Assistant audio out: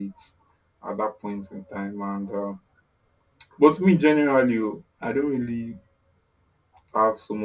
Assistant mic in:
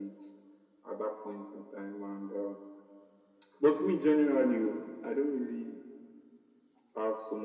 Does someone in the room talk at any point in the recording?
No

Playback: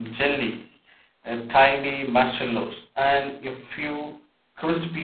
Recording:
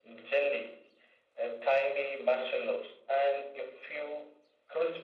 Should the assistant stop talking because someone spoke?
No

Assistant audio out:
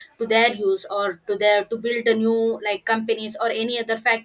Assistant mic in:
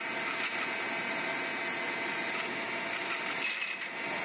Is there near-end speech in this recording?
No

